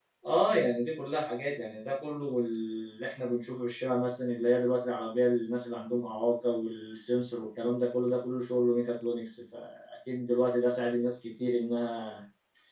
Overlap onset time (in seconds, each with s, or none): none